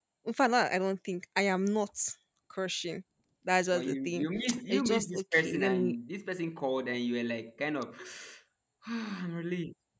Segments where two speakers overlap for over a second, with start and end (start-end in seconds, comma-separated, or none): 4.7-6.0